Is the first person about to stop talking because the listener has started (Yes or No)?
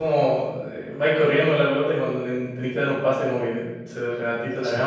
Yes